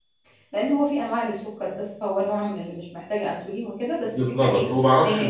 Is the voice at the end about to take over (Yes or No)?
Yes